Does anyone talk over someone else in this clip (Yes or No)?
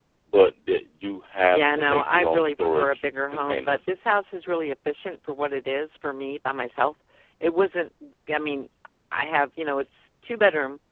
Yes